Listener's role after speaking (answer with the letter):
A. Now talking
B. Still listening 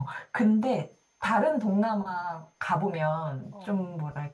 B